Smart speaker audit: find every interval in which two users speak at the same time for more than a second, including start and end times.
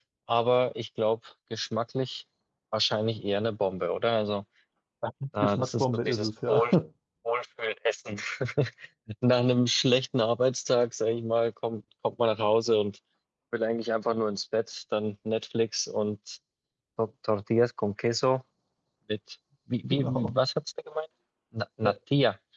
5.4-6.7

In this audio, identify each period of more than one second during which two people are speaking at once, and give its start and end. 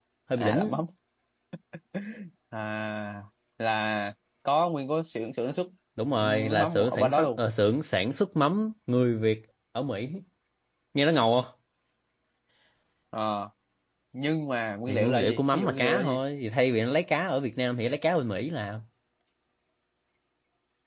6.2-7.4, 14.9-16.2

